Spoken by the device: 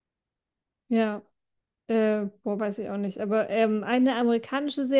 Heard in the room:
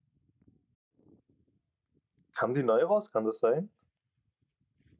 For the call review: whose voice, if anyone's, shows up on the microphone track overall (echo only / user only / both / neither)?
user only